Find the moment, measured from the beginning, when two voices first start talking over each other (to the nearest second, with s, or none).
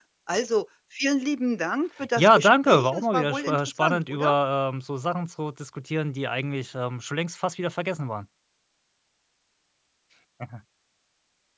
2 s